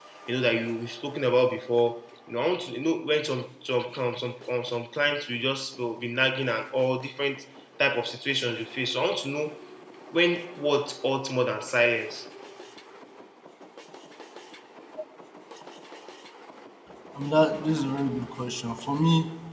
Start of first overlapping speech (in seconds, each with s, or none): none